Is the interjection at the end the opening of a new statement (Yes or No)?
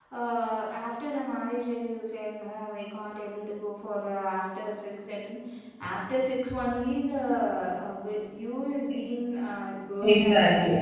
Yes